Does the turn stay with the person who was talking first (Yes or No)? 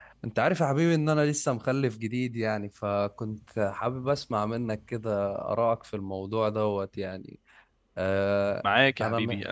No